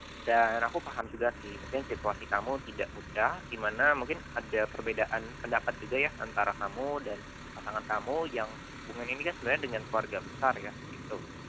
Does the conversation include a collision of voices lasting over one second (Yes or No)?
No